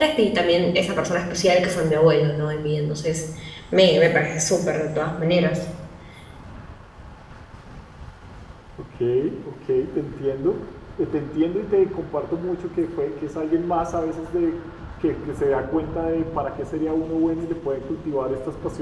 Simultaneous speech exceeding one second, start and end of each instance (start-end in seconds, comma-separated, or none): none